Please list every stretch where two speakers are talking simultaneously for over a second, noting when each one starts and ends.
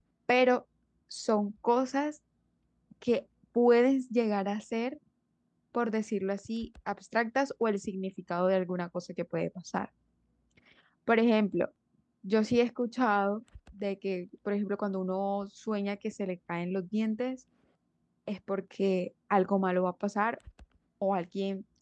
none

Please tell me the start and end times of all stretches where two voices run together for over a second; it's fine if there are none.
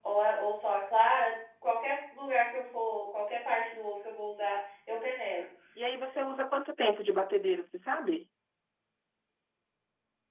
none

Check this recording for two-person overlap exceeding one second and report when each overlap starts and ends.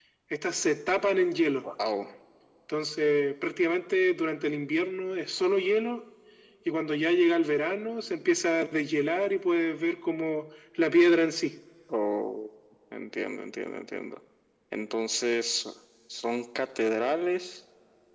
none

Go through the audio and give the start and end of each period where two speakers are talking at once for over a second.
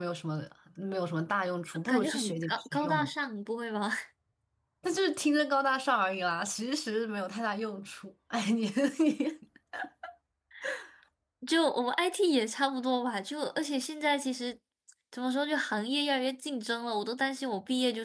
1.9-3.1

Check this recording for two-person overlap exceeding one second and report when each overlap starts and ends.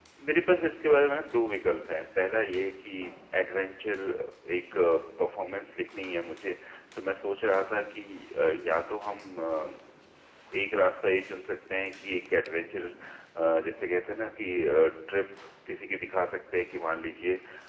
none

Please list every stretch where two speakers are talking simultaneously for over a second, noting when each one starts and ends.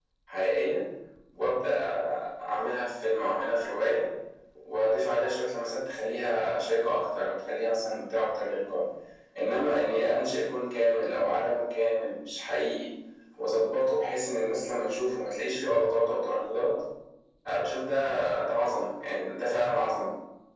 none

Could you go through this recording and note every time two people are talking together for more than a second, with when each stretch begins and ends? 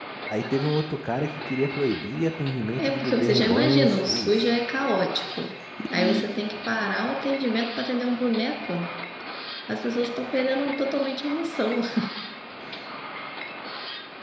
2.8-4.5

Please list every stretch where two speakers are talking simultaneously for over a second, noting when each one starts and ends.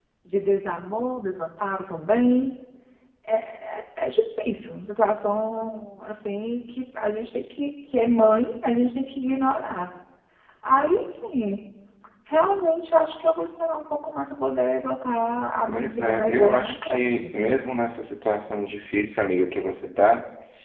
15.7-17.3

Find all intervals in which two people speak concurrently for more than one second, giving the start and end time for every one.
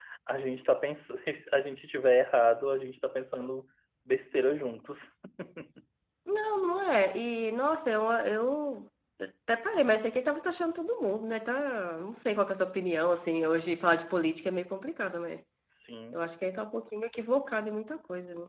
none

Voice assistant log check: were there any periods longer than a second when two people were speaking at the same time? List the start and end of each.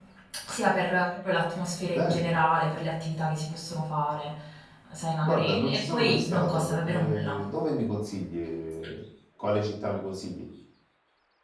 5.2-7.4

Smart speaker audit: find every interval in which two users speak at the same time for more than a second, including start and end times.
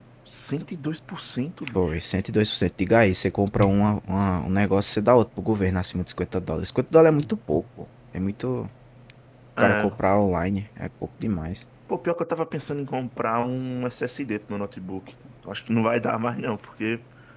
none

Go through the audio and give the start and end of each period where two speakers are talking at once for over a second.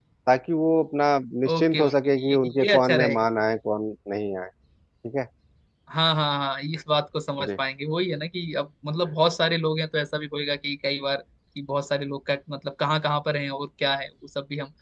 1.5-3.2

